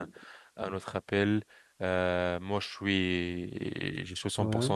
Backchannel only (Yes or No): Yes